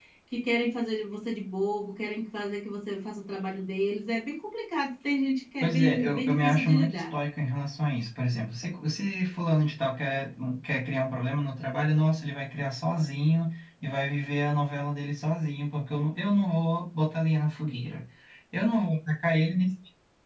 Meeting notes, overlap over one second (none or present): present